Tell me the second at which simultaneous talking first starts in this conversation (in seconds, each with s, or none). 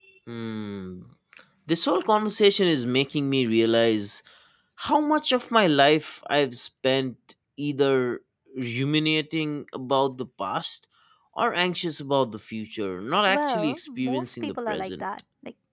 13.3 s